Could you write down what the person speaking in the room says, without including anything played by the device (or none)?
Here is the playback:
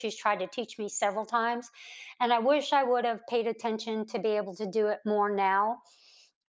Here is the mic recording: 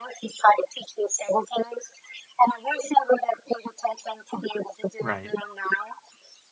Right,